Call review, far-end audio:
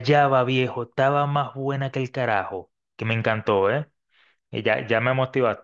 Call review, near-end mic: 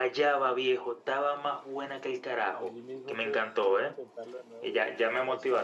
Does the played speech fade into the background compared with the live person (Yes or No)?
No